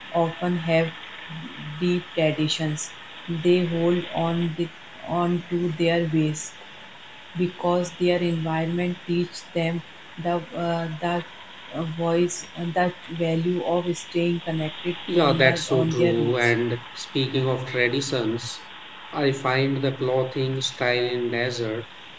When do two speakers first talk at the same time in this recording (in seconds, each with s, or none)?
15.1 s